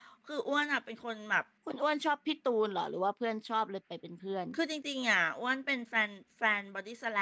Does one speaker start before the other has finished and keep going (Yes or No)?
No